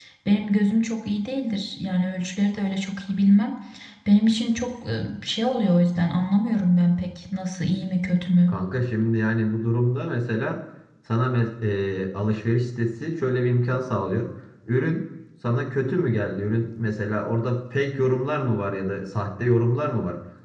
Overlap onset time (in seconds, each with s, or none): none